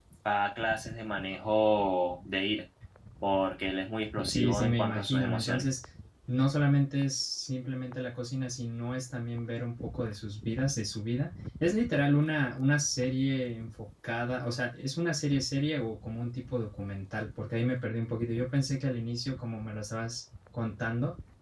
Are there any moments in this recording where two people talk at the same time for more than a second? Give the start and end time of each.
4.2-5.6

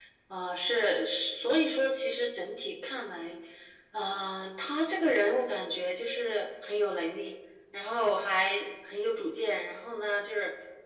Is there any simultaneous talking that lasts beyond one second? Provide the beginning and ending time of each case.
none

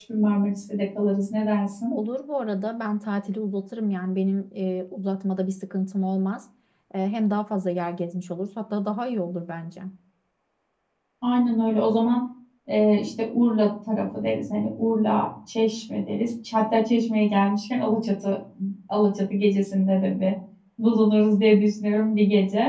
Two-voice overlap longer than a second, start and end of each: none

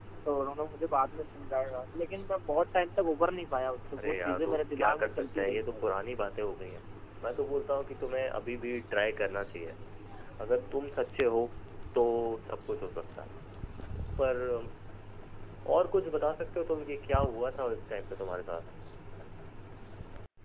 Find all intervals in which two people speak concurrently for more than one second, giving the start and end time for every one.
4.0-5.8

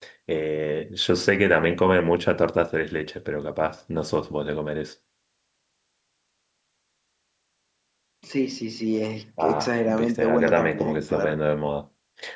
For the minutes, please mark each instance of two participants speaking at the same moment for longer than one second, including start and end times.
9.4-11.4

